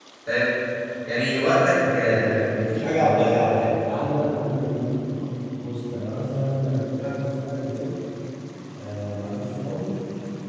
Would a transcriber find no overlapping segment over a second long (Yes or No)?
No